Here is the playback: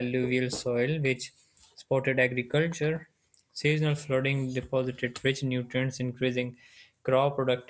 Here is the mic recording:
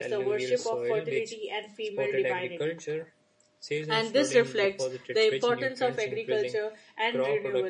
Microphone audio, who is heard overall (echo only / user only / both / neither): both